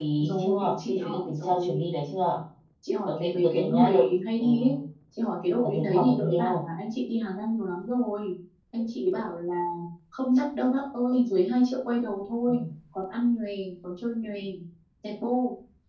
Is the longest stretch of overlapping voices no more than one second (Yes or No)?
No